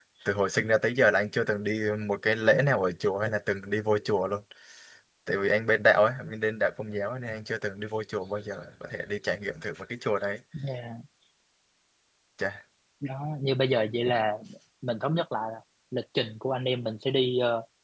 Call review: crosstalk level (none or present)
none